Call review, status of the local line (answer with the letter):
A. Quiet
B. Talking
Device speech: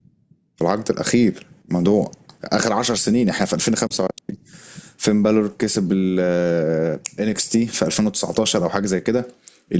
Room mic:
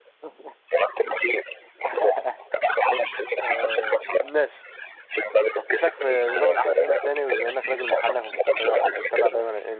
B